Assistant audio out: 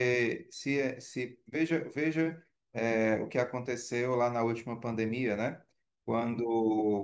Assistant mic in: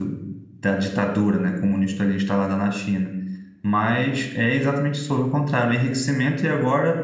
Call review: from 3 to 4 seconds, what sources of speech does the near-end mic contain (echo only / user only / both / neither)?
user only